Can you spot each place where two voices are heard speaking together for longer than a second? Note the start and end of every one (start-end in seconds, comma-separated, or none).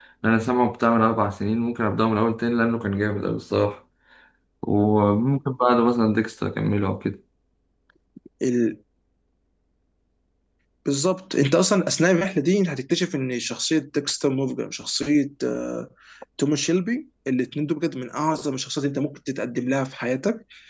none